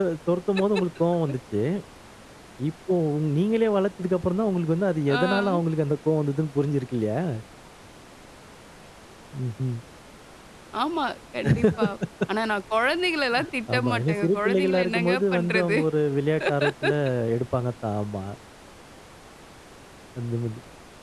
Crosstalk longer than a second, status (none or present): present